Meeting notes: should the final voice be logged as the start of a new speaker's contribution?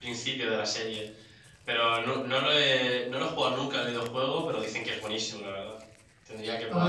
Yes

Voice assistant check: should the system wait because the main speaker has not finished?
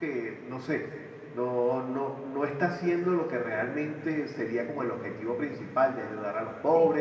No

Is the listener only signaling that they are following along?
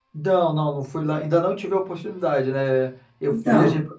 Yes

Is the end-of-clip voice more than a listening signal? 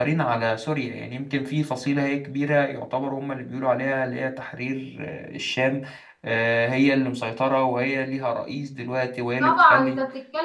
Yes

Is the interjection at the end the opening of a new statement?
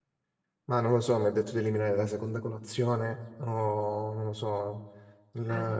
No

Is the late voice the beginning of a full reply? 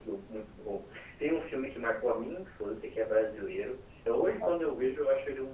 No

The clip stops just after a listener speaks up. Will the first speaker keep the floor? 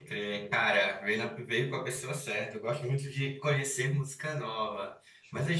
Yes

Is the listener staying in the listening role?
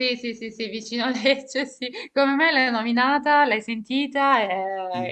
No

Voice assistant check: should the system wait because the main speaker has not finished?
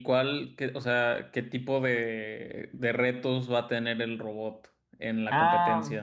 No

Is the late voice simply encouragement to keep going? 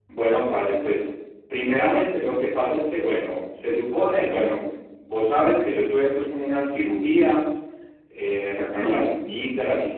Yes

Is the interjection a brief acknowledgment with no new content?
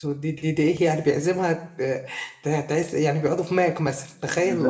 No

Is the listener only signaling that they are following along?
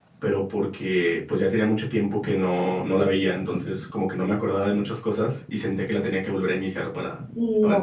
No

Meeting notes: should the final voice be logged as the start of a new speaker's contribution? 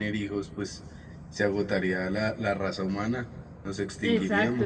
Yes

